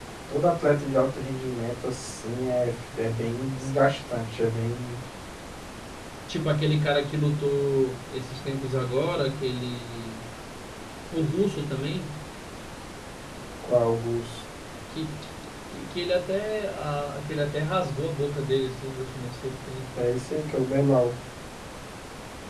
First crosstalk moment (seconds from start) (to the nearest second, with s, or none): none